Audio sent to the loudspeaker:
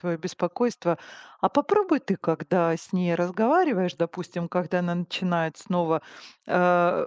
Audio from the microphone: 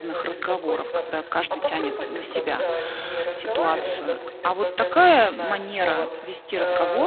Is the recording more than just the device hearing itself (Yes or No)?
Yes